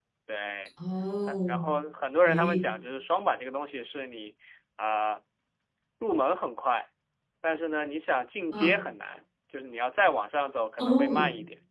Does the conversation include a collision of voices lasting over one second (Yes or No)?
No